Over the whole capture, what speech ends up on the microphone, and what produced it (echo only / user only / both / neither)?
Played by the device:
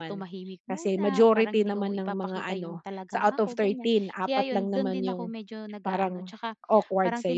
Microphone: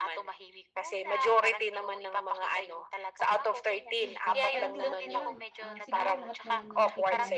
both